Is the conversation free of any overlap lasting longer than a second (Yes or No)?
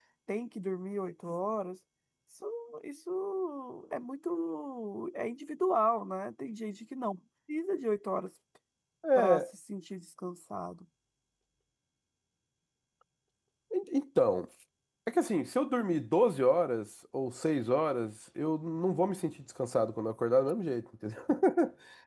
Yes